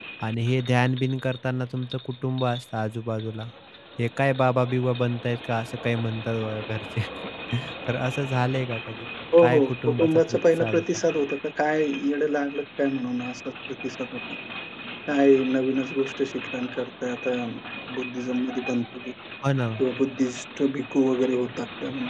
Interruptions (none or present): present